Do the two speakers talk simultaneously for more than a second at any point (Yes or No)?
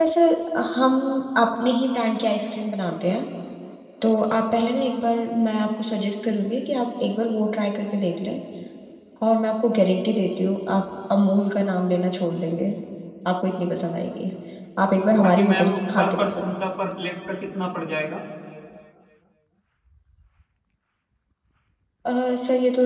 Yes